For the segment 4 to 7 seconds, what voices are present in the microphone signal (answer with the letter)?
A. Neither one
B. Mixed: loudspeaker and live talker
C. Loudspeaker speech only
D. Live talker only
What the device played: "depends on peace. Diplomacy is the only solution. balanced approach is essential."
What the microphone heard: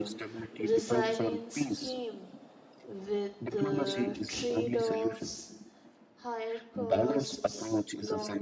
B